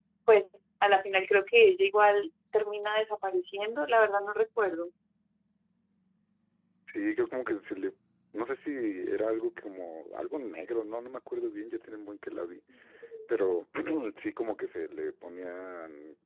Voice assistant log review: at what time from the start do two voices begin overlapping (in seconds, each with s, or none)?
none